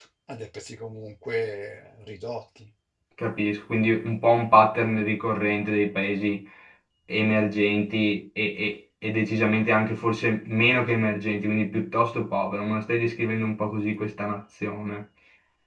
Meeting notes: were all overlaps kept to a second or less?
Yes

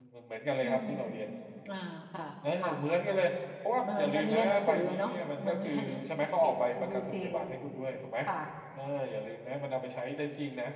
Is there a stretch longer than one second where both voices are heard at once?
Yes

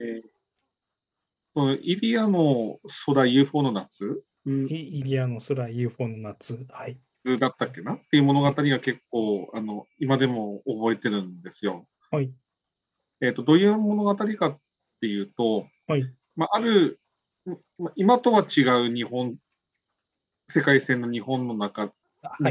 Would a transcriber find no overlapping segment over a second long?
Yes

